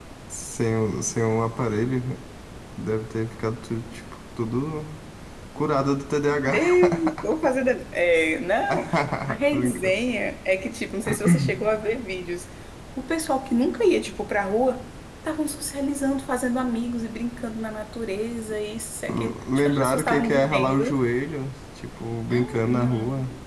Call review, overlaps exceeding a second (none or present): present